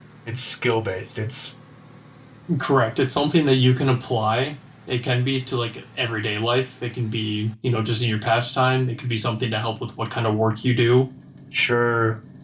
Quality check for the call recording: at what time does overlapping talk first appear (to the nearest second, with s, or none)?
none